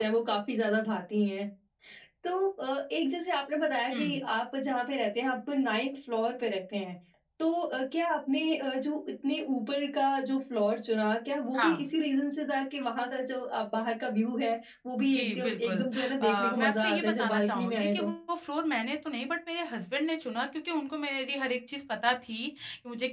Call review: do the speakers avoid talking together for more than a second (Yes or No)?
No